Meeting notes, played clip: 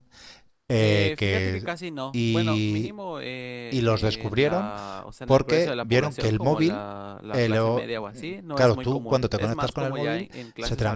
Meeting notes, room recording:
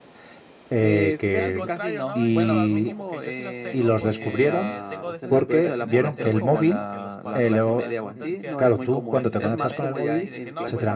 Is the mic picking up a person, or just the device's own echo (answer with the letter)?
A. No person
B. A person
B